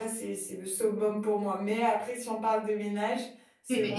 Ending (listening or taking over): taking over